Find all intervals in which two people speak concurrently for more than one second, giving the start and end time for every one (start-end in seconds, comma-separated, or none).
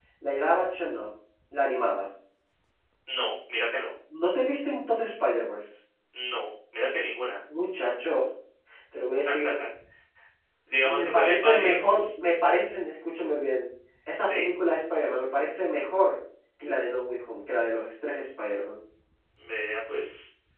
10.8-12.1